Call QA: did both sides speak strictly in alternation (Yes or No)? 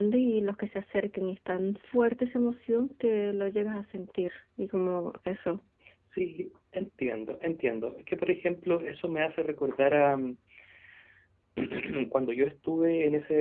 Yes